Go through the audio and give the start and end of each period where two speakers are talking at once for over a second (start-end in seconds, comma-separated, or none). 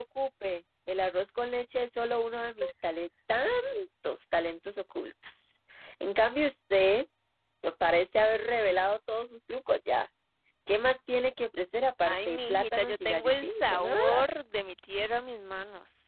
12.1-14.3